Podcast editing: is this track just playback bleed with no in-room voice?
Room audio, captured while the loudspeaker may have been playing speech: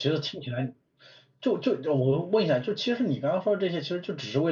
No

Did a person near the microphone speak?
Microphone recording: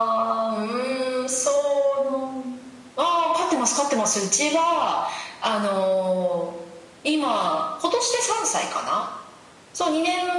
No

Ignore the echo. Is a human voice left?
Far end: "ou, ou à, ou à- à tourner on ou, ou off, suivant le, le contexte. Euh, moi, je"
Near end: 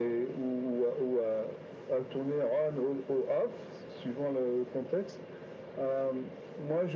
No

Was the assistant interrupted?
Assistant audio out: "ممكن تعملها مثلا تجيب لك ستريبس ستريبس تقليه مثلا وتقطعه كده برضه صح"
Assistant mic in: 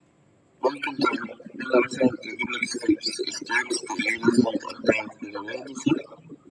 No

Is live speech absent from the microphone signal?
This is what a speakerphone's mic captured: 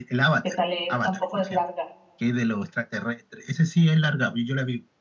No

